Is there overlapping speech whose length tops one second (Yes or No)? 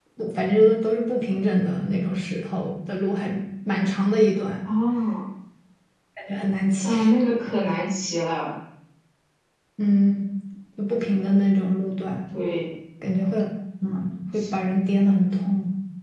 No